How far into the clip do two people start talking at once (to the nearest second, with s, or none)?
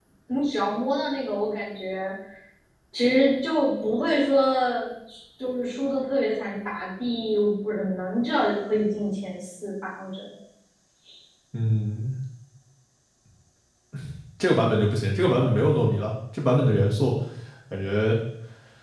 none